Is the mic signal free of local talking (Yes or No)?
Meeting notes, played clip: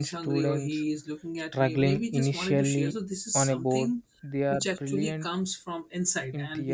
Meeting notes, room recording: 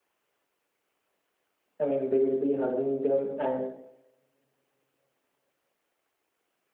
No